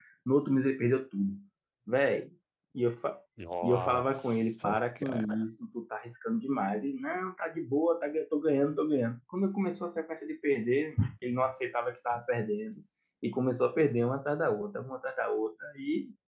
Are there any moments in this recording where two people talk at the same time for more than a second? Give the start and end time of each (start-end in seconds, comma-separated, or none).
3.6-5.4